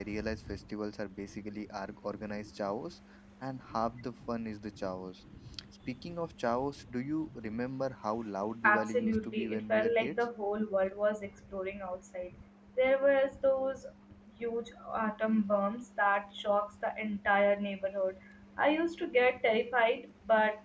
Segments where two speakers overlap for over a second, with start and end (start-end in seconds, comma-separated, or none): 8.6-10.2